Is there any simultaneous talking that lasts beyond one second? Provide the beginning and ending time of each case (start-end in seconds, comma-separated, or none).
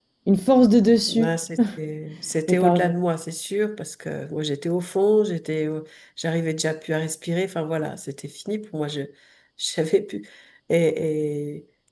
none